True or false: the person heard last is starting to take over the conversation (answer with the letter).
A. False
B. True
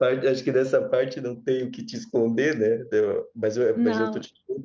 A